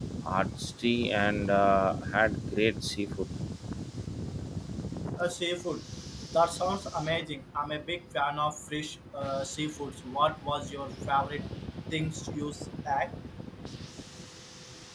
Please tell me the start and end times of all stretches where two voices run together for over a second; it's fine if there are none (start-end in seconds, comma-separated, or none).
none